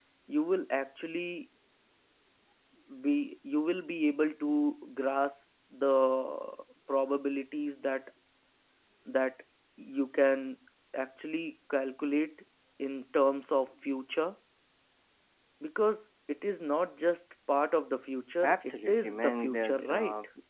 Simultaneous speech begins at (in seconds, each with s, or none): 18.4 s